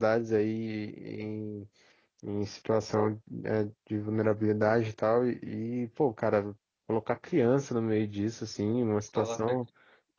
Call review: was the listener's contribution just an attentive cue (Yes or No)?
Yes